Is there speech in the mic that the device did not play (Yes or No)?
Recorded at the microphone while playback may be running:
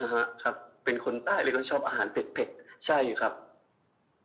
No